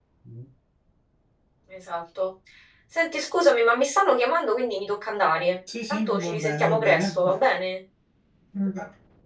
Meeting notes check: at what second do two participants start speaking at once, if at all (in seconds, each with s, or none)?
5.9 s